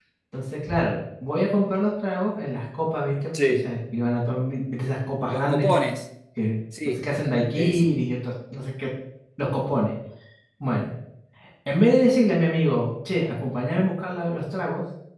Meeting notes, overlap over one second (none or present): none